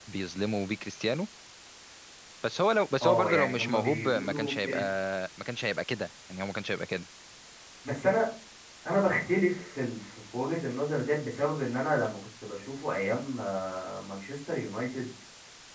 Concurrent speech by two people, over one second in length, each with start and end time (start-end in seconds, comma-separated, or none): 3.0-4.8